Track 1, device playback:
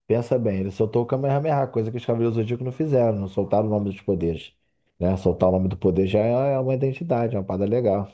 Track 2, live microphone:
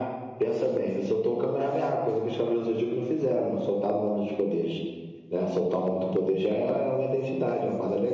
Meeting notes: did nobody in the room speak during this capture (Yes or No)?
Yes